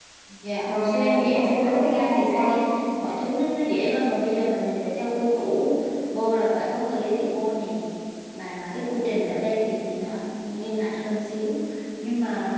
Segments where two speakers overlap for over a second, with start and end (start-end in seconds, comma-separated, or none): 0.6-2.6